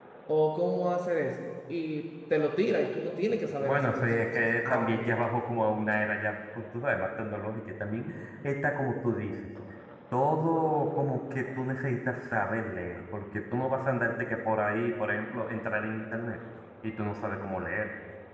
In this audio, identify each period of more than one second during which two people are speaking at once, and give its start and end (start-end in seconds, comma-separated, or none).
3.5-5.1